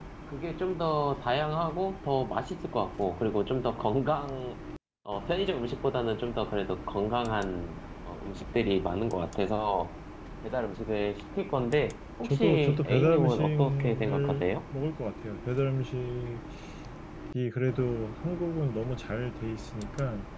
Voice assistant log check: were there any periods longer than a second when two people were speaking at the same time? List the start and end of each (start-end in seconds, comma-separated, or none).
12.2-14.4